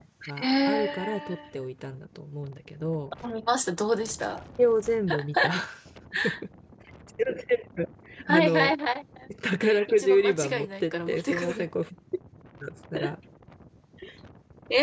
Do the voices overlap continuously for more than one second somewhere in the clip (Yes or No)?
Yes